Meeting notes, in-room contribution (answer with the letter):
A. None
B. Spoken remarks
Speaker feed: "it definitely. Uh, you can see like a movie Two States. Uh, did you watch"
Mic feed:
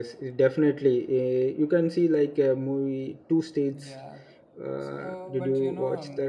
B